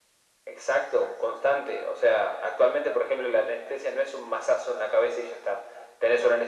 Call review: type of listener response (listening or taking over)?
listening